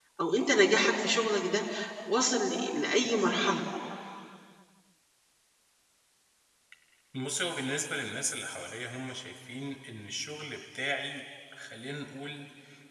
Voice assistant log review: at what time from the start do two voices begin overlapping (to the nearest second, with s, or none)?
none